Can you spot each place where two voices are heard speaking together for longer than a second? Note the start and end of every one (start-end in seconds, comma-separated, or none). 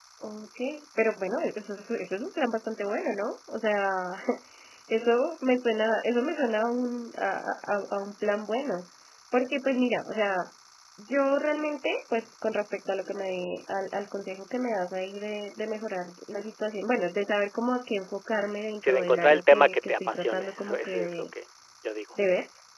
18.9-21.2